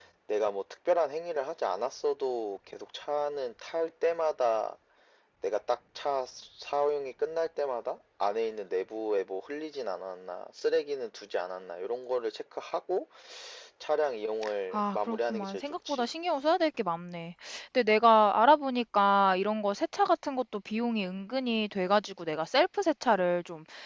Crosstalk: present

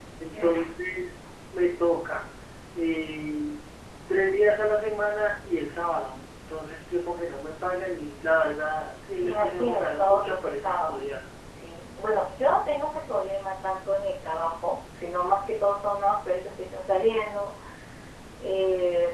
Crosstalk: present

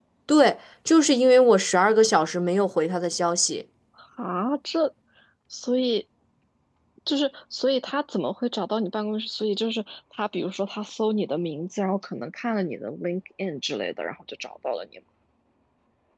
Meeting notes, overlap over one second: none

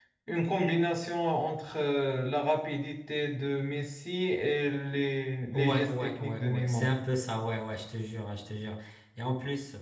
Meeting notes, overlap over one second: present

